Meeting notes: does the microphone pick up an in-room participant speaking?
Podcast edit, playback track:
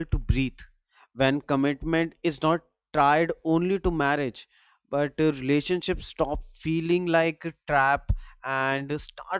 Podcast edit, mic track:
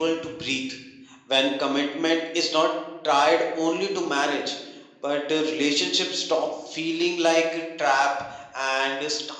No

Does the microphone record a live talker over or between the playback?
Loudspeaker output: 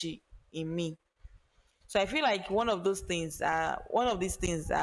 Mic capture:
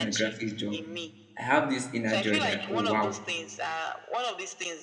Yes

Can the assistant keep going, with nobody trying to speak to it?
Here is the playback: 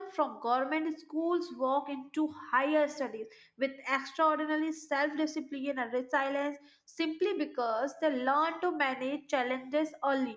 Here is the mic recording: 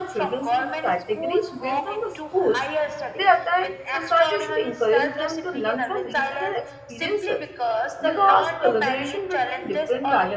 No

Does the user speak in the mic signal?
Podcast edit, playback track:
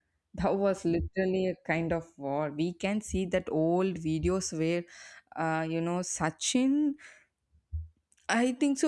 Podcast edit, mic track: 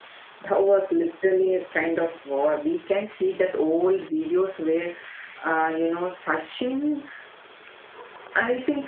No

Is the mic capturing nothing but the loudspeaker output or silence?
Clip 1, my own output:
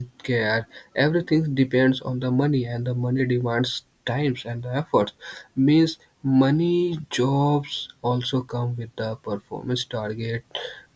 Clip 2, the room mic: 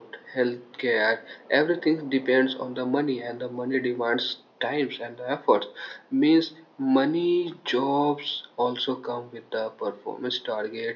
Yes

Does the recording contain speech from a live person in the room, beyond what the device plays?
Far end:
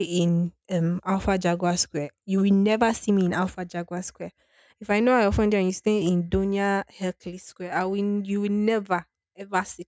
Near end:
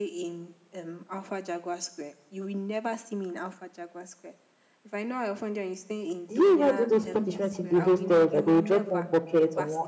Yes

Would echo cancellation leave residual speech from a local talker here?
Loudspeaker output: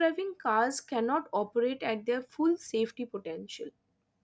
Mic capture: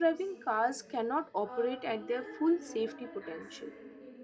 Yes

